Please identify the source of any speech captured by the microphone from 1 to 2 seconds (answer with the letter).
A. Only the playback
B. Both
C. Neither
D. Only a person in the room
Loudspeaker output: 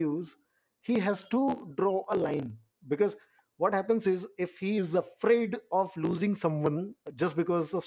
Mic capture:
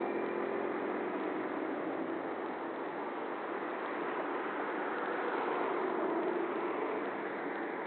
C